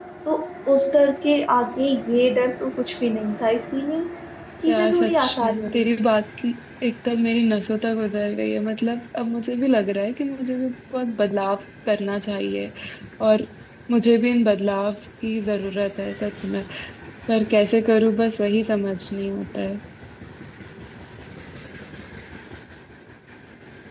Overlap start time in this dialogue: 4.7 s

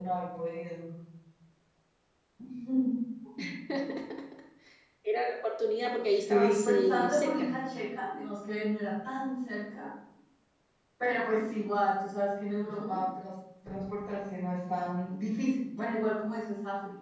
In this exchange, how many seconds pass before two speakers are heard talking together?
6.1 s

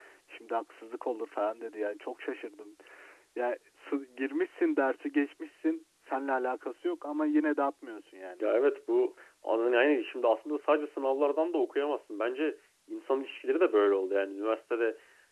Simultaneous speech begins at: none

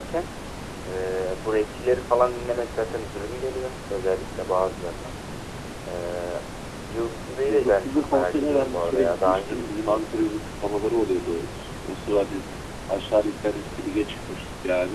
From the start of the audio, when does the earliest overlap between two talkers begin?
7.5 s

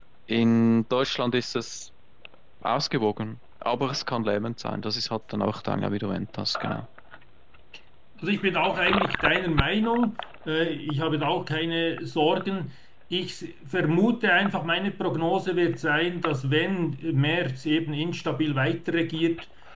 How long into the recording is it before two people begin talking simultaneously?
none

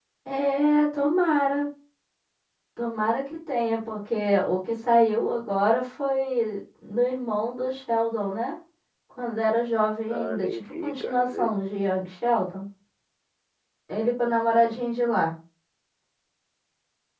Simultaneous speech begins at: 10.1 s

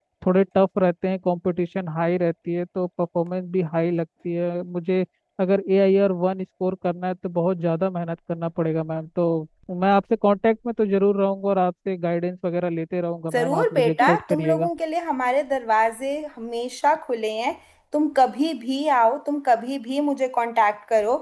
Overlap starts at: 13.3 s

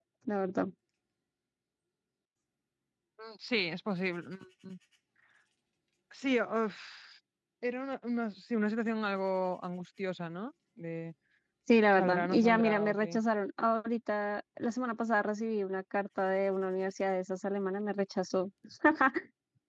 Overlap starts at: 12.0 s

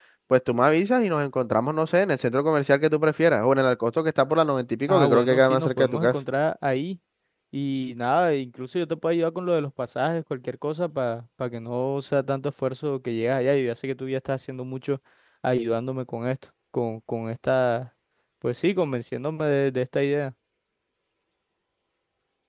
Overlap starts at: 4.9 s

